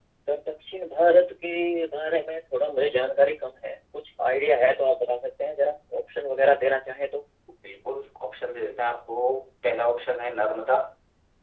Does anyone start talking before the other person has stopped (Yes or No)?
No